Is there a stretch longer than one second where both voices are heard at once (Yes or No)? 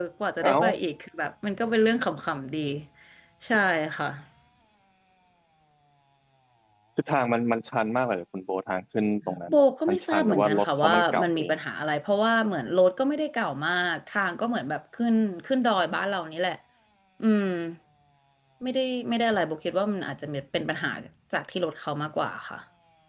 Yes